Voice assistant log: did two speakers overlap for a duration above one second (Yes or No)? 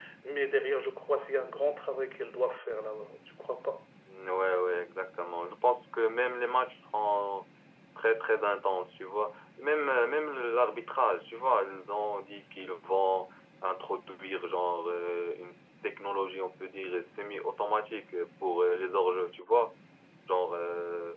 No